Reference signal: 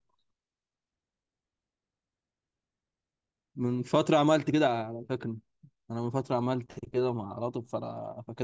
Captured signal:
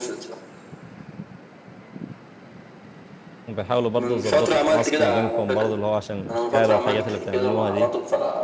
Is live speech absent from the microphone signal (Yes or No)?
No